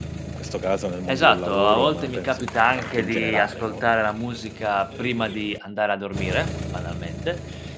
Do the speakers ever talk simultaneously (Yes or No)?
Yes